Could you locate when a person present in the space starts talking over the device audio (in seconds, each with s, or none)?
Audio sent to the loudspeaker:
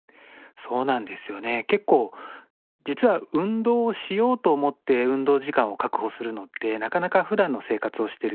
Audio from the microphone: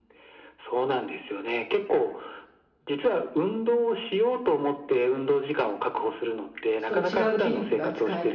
6.8 s